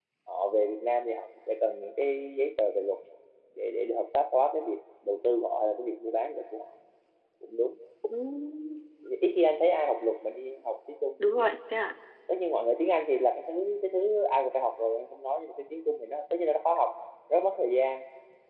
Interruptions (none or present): none